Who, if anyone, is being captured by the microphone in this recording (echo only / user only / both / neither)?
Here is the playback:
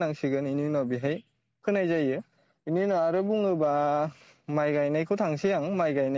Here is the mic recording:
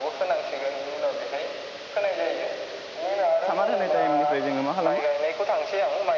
both